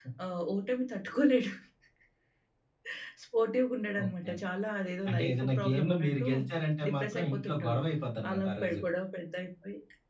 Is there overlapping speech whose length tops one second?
Yes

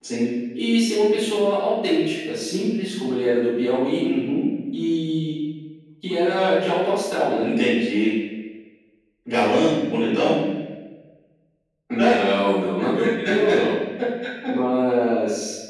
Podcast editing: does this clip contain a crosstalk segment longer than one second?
No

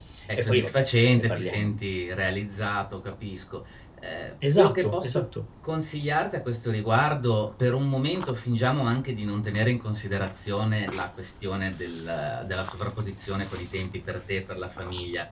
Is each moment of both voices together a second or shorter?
No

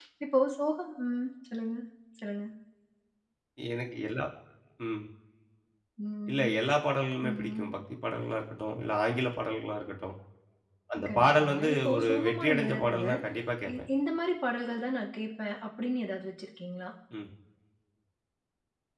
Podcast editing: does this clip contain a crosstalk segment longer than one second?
Yes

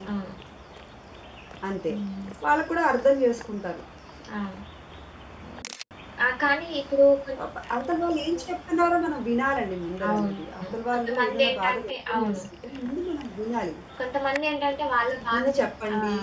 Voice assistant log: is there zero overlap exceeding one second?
No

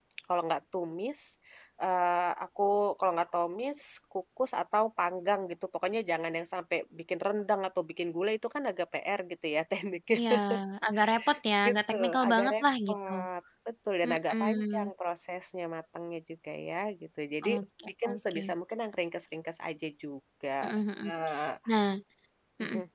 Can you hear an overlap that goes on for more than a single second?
Yes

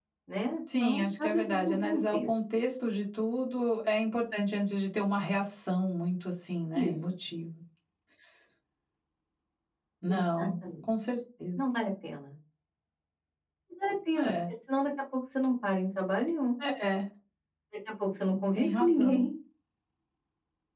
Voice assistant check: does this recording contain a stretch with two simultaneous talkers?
Yes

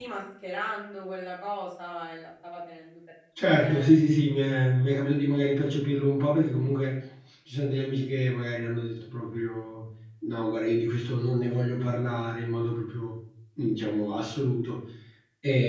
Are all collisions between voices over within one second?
Yes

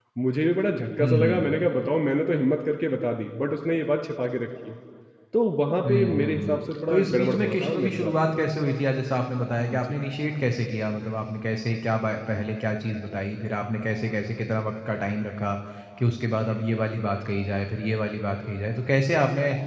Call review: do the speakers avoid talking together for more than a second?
No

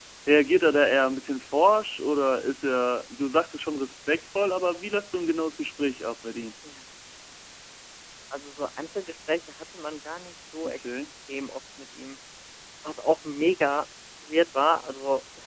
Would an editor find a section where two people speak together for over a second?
No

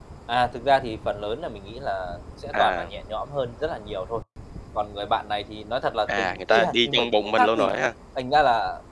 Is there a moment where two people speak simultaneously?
Yes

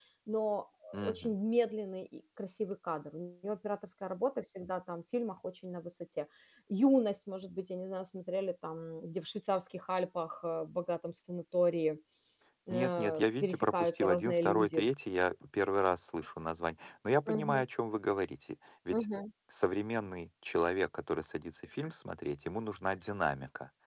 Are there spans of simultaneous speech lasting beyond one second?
Yes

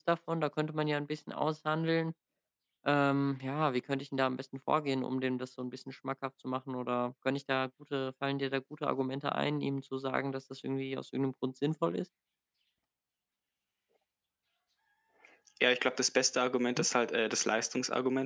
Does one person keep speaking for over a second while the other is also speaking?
No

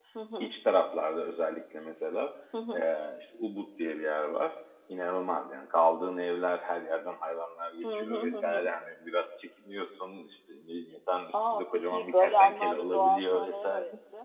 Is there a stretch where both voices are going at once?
Yes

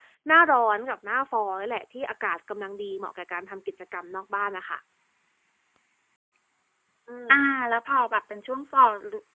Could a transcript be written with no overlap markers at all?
Yes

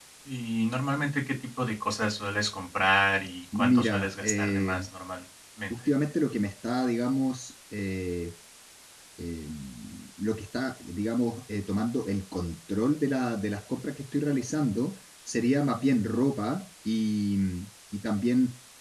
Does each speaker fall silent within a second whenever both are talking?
No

